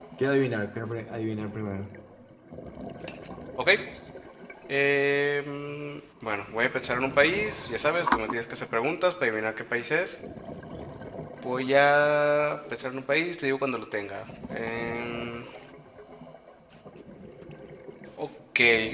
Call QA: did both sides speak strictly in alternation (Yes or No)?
Yes